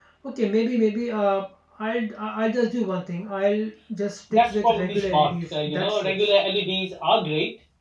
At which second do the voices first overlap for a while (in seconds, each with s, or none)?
4.3 s